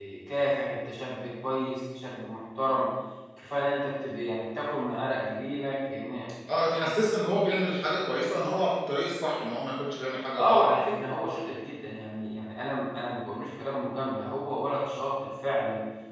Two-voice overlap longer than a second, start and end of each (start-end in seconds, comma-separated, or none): none